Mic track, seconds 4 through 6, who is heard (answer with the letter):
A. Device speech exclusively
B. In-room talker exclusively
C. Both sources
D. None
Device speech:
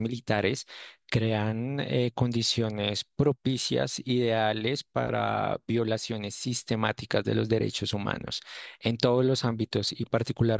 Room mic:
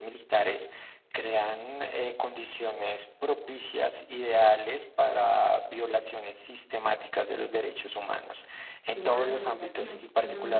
A